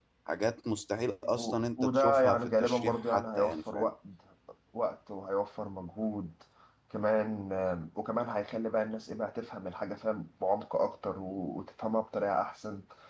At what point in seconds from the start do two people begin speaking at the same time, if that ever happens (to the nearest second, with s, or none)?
1 s